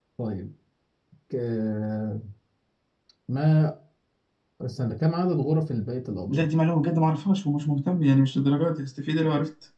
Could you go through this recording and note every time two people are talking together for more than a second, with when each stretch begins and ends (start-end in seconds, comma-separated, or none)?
none